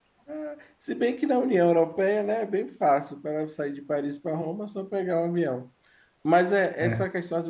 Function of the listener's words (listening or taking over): listening